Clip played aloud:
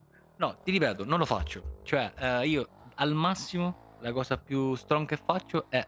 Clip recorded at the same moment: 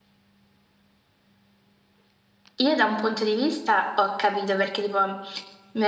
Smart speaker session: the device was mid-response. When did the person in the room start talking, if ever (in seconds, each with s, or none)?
2.6 s